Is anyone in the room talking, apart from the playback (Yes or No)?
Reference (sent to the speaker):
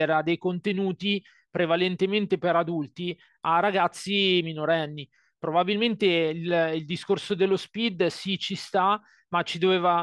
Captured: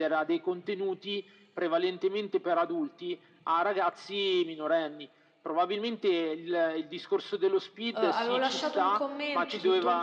Yes